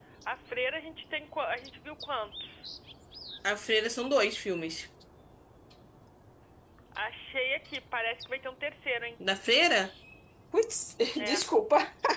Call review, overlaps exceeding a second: none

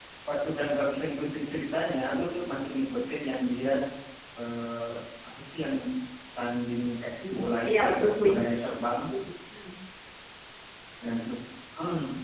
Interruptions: present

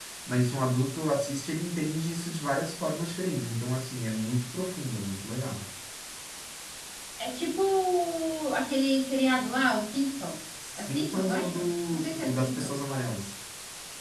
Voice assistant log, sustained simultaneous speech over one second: present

